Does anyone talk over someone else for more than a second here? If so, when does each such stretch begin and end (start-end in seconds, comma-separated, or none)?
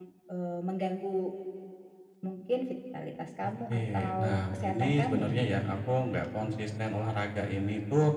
3.5-5.2